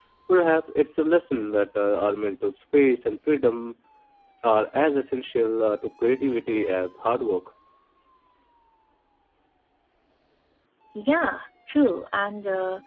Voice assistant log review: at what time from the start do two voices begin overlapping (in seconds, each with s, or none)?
none